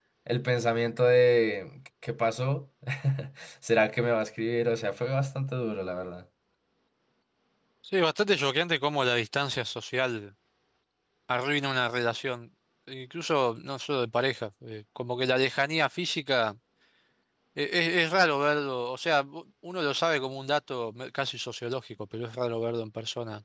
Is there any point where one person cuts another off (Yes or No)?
No